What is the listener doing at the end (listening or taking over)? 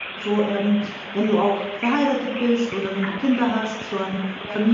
taking over